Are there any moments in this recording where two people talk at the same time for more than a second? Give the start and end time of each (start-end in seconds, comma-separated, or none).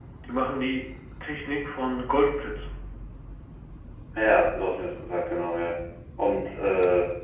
none